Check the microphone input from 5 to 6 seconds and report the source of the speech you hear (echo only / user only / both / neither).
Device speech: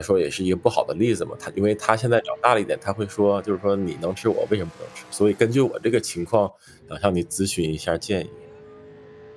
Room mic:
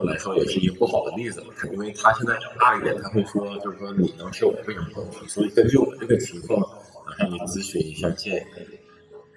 echo only